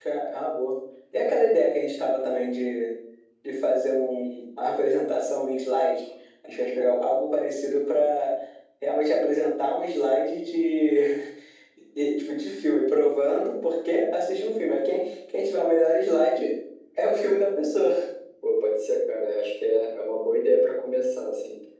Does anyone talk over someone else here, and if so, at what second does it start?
none

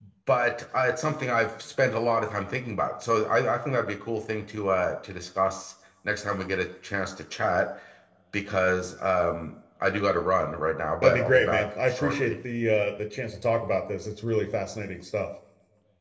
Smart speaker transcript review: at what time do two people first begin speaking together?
11.0 s

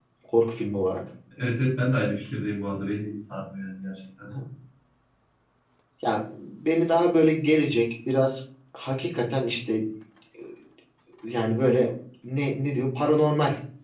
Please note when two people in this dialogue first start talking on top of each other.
none

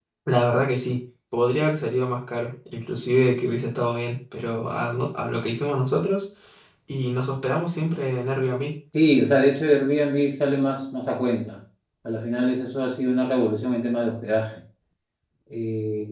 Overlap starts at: none

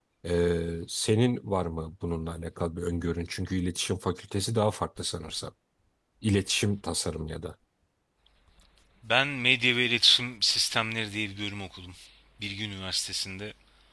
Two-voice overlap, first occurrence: none

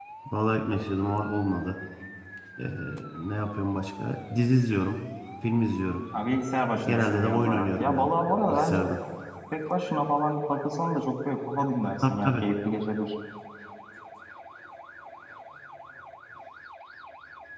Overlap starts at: 6.8 s

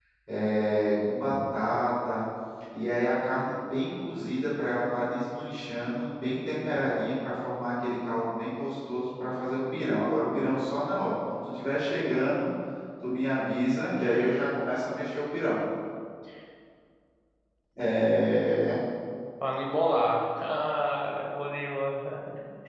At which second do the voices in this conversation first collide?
none

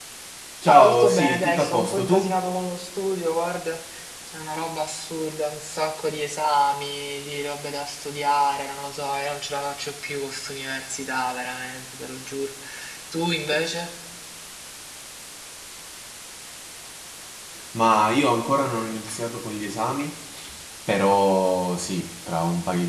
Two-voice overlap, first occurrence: 0.6 s

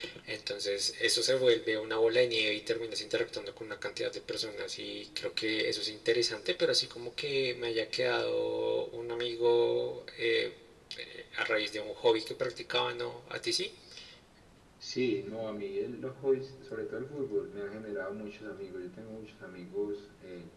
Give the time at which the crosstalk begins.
none

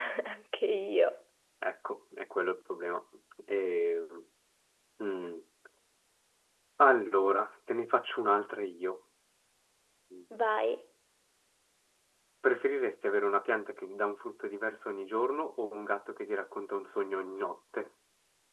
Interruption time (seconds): none

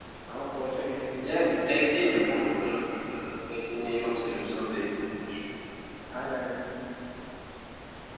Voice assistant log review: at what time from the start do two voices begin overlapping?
1.2 s

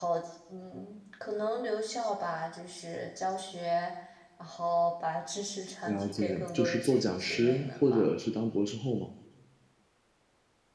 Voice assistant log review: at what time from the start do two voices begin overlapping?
5.9 s

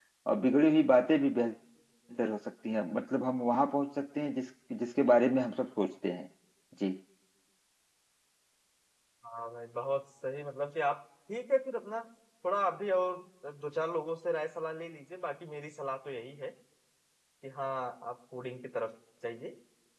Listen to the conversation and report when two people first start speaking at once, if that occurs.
none

